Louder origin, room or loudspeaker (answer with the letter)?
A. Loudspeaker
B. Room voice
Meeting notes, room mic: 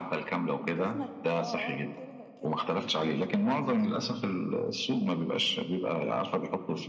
A